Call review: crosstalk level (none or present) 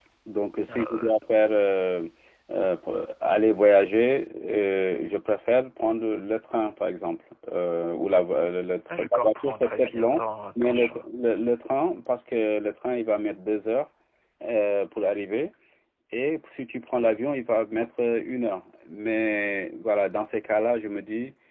present